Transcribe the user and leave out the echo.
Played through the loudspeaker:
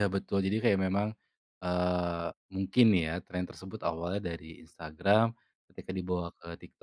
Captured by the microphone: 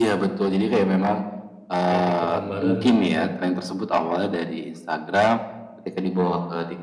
ya TikTok-an bareng gitu kan.

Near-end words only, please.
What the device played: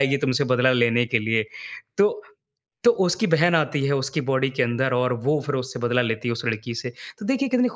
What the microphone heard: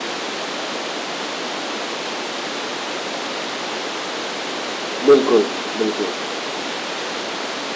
बिल्कुल। बिल्कुल।

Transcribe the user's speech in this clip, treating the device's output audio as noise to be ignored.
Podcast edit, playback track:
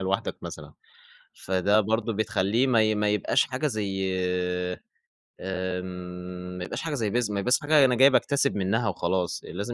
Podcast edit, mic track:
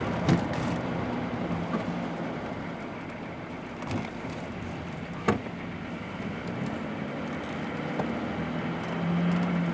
none

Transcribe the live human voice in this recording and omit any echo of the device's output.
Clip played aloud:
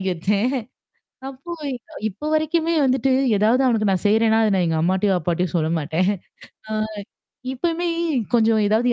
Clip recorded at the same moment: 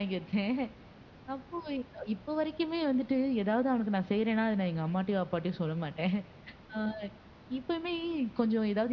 none

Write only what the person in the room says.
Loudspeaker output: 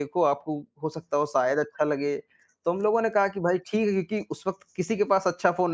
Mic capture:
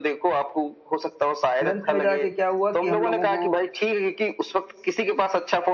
फिर अंत में जाके क्या हुआ कि हम लोगों को

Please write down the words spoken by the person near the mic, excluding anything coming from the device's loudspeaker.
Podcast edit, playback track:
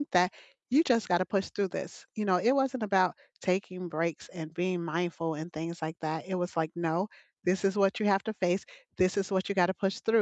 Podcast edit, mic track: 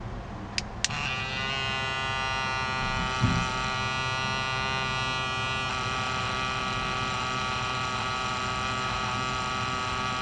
none

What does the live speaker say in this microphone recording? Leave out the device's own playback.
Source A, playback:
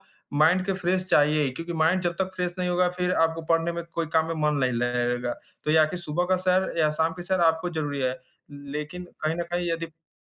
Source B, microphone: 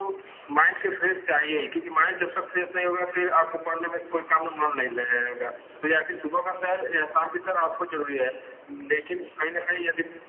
none

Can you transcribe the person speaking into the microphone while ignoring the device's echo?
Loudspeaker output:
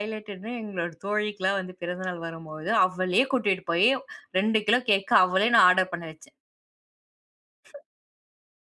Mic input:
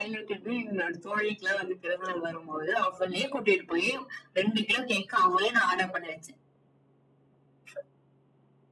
none

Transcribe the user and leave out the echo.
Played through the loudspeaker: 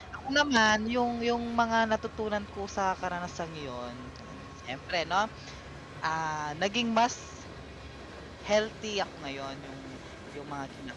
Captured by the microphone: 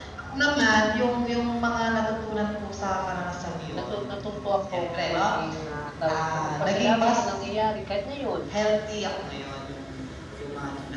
natu natuto akong maging, ah, tawag dito, magpasalamat sa nangyayari. Kahit ngayon

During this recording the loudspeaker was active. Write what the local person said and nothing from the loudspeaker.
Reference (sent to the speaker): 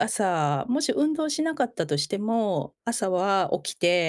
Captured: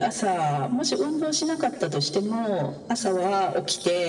none

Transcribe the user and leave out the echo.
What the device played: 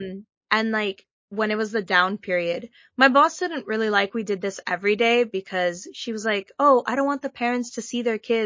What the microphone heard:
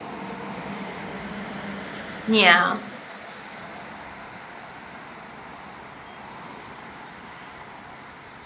Yeah.

